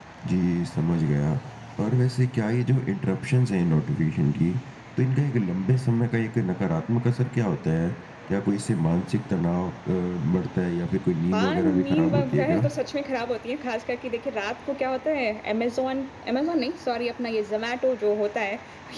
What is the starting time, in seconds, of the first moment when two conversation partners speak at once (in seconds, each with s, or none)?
11.3 s